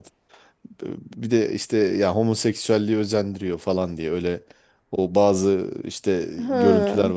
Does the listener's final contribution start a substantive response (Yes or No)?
No